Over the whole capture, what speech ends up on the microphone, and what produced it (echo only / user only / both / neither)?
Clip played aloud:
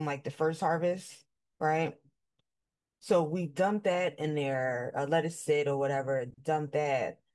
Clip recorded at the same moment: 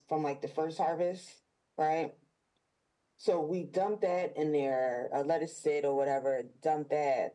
echo only